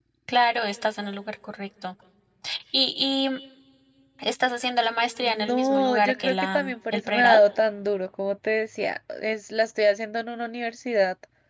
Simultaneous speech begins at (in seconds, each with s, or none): 5.2 s